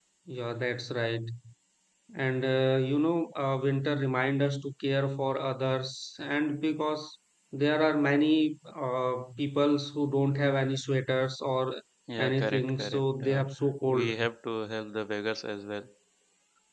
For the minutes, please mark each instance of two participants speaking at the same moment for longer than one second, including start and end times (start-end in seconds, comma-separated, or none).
12.2-13.4